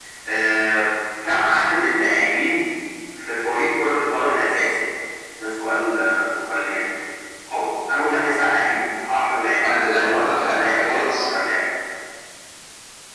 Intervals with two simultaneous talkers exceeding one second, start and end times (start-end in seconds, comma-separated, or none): 9.6-11.2